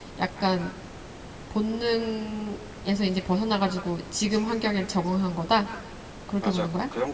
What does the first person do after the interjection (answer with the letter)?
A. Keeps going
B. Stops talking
B